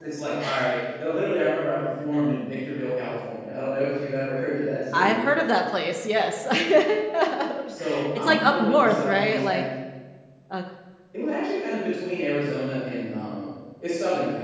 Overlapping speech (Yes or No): Yes